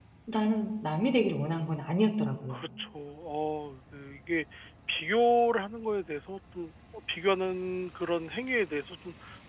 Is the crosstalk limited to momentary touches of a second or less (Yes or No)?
Yes